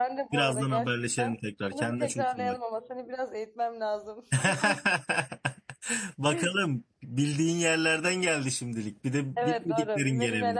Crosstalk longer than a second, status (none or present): present